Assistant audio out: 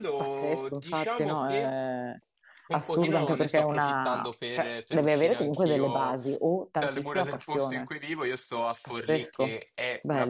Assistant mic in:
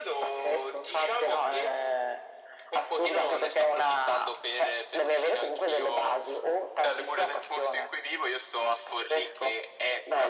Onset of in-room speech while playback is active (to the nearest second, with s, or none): none